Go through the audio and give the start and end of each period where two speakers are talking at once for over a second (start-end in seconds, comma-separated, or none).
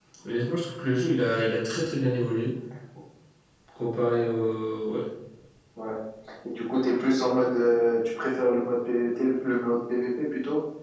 none